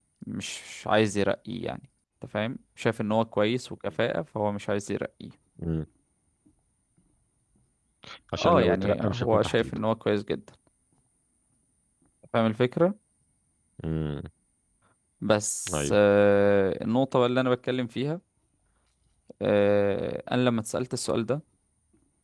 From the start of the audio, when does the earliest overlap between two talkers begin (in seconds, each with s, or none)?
8.4 s